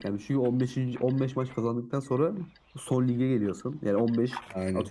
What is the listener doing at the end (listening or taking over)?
listening